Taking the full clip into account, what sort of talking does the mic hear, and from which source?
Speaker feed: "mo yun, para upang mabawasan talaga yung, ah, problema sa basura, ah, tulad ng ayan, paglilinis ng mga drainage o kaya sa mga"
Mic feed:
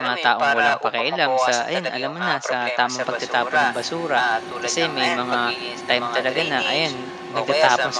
both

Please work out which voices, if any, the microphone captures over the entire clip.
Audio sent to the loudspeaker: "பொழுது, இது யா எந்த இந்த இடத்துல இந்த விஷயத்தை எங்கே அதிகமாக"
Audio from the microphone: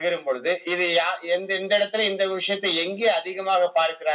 echo only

